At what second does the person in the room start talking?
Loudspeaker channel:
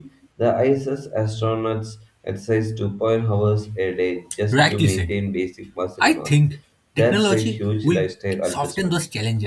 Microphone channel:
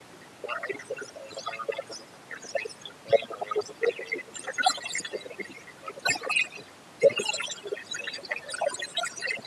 none

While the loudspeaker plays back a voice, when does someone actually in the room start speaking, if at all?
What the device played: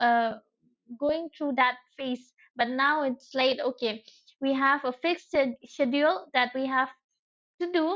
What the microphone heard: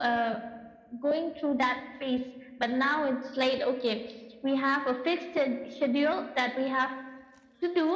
none

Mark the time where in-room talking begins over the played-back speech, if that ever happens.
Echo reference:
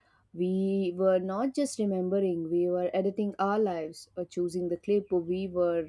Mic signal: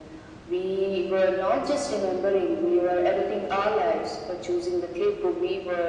none

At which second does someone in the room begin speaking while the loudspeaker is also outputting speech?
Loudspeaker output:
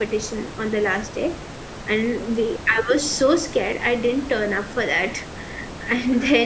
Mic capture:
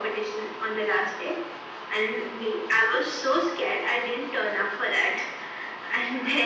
none

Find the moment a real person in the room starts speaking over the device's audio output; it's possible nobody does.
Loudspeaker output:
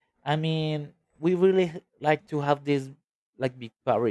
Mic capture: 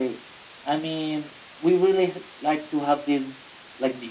none

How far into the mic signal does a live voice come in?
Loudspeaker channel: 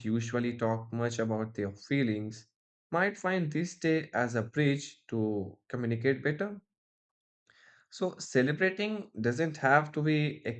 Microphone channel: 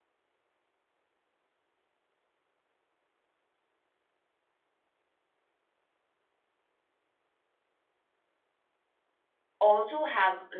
9.6 s

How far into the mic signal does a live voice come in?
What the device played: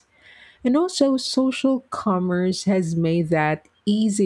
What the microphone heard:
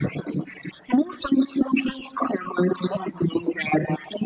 none

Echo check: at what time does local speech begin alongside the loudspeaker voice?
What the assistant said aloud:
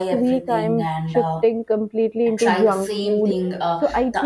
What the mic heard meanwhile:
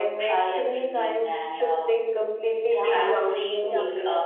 2.7 s

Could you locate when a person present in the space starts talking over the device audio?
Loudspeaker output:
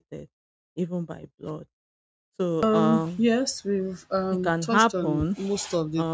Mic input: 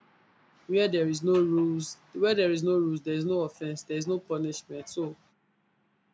0.7 s

